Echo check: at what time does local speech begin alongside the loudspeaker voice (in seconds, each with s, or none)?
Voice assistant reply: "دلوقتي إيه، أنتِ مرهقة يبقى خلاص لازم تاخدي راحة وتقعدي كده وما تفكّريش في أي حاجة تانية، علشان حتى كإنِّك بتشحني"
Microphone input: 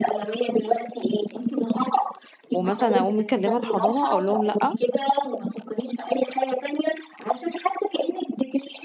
2.5 s